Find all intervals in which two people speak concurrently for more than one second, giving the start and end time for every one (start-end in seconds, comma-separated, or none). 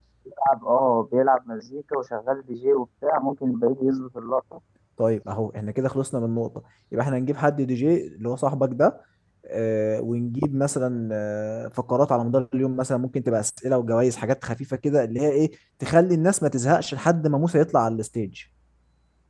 none